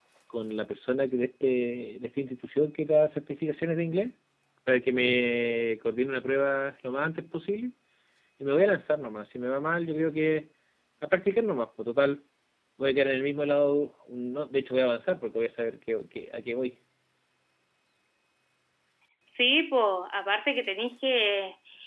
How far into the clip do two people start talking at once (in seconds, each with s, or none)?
none